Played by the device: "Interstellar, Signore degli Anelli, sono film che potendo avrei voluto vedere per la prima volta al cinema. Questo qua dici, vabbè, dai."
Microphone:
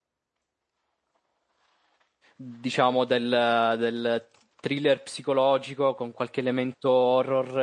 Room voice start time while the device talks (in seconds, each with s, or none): 2.4 s